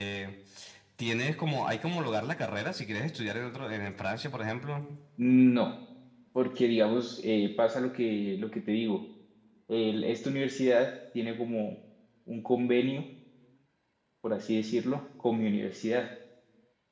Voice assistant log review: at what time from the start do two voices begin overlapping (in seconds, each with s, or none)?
none